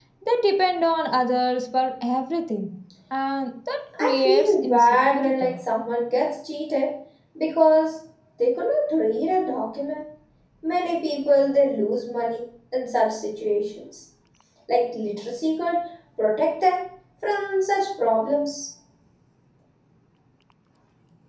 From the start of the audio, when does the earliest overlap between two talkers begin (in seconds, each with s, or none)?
4.0 s